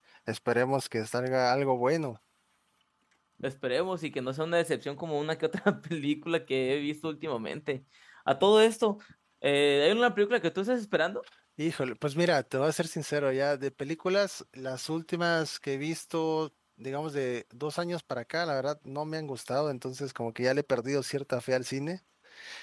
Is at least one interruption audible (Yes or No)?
No